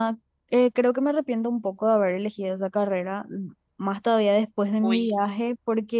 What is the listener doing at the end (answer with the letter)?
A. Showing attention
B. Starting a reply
A